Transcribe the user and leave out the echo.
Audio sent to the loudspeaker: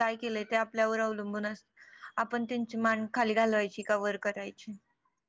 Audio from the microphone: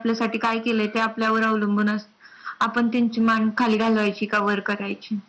none

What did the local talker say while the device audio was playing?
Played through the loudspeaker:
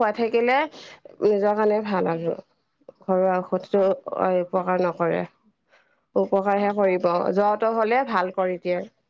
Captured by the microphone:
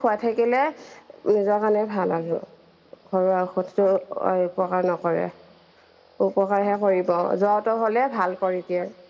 none

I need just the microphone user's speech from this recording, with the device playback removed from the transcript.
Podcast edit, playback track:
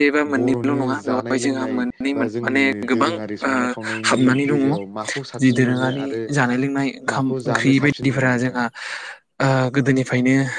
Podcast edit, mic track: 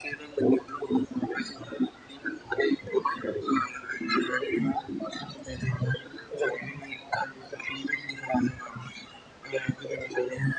none

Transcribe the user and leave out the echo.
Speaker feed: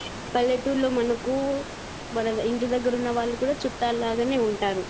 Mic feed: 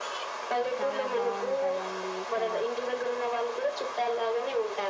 చాలా బాగుంటదండి ఇక్కడ

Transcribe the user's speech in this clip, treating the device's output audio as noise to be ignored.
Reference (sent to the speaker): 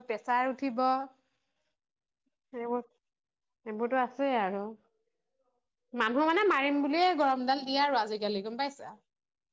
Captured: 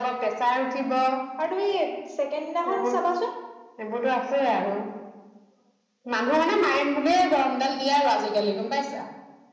আৰু তুমি চেকেণ্ড দিনাখন চাবা চোন,

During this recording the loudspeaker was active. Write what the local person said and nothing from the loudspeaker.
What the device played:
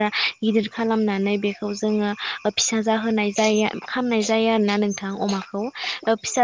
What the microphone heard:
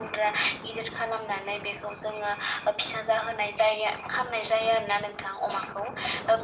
none

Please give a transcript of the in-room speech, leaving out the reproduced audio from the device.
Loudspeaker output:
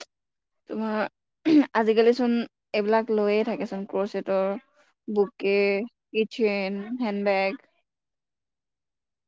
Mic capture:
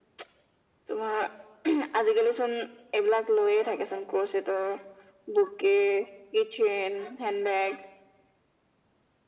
none

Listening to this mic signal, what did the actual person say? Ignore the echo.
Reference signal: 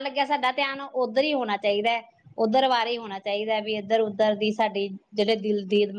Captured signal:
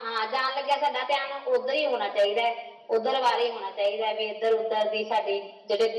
none

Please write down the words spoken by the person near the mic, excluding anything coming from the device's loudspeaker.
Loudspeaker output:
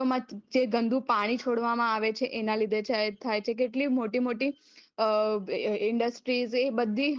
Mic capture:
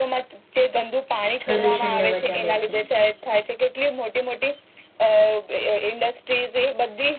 પ્રદૂષણને વધારે છે.

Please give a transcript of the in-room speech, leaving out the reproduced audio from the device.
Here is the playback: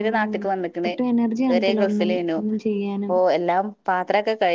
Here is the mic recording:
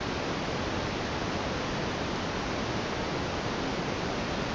none

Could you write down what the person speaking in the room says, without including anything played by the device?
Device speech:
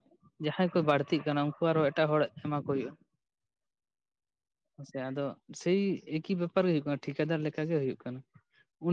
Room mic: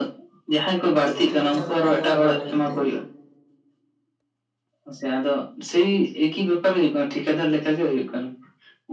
ᱥᱚᱵᱽᱡᱤ ᱠᱚᱠᱚ ᱪᱟᱥ ᱵᱟᱲᱟᱭᱟ ᱚᱲᱟᱜ ᱡᱚᱢ ᱞᱟᱹᱜᱤᱫ ᱛᱮ᱾

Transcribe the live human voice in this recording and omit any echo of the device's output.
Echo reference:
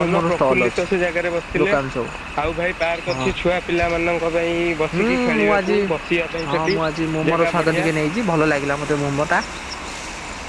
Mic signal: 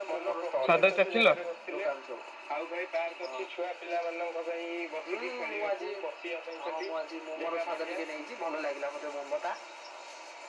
ସ୍ଵାଦ ଚାଖିଲ?

